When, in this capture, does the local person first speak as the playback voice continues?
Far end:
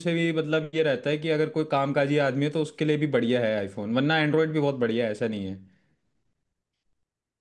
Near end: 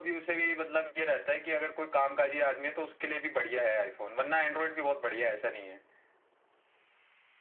none

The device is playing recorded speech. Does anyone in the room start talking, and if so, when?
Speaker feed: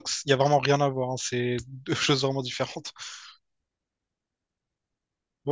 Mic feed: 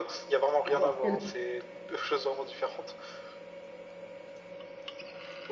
0.7 s

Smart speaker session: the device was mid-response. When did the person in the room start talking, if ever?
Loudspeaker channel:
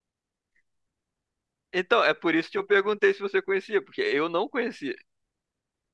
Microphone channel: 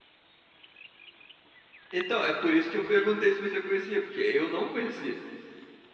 none

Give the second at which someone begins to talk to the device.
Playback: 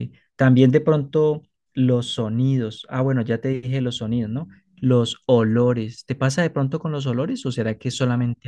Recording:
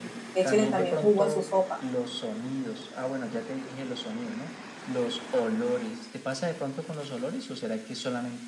0.3 s

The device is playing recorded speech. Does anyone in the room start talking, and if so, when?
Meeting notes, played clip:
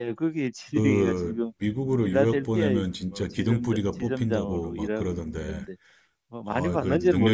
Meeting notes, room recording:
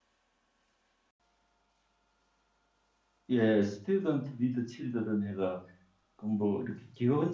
3.3 s

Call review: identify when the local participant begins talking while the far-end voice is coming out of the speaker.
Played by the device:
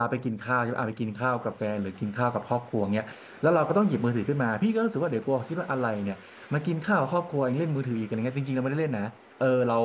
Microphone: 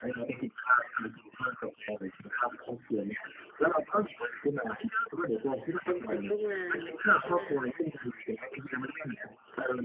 5.8 s

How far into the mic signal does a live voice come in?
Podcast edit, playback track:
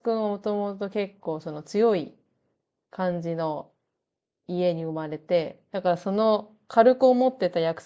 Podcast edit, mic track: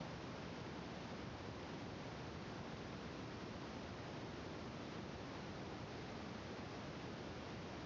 none

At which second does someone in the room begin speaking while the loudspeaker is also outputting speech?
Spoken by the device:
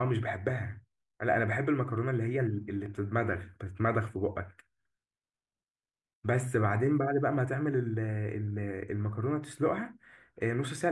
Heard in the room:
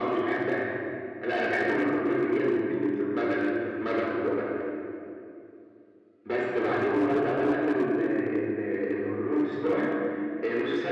none

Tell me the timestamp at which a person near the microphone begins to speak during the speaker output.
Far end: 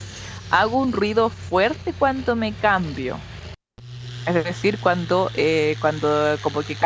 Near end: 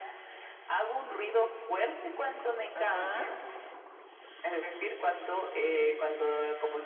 2.7 s

